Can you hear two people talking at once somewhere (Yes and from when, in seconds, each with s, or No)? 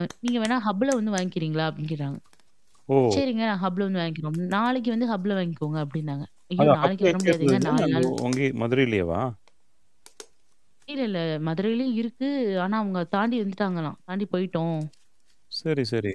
Yes, from 6.6 s